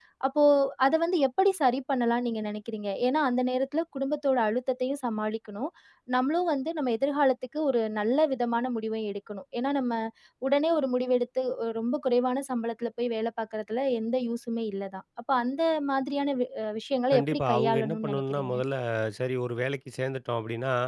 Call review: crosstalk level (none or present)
present